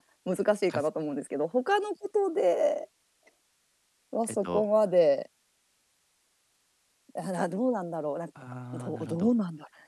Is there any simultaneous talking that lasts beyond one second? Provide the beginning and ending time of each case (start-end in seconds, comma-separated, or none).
none